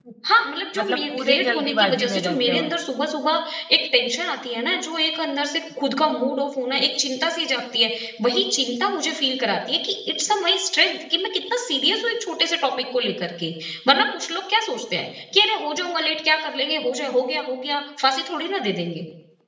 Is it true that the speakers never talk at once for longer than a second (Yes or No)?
No